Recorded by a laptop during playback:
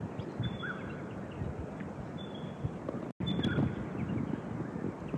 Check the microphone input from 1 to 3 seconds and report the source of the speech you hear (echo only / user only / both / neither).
neither